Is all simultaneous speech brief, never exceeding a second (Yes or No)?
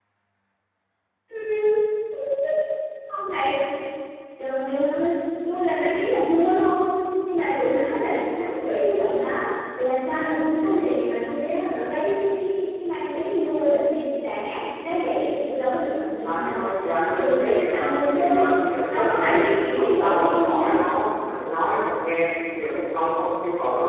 No